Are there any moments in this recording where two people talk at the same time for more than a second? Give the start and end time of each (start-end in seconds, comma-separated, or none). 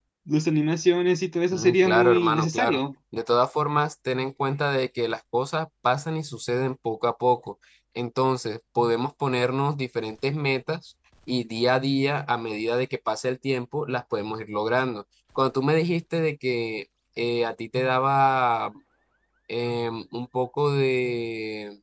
1.5-2.8